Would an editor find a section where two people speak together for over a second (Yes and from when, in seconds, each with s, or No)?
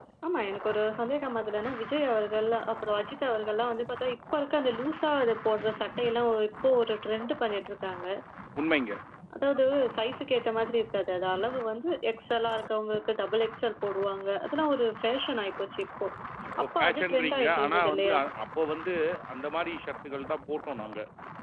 Yes, from 16.6 s